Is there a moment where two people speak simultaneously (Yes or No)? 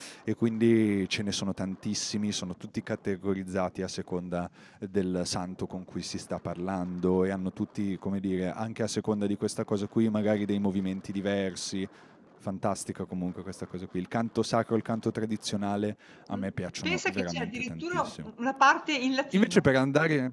Yes